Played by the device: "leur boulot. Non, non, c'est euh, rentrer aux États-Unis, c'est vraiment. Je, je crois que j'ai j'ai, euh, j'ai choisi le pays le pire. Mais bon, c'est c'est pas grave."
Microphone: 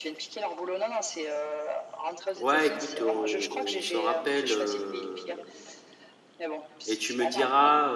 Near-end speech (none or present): present